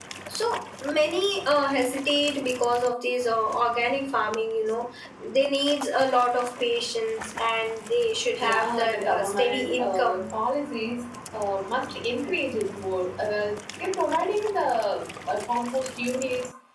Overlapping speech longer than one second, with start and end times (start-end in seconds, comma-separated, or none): 8.4-10.3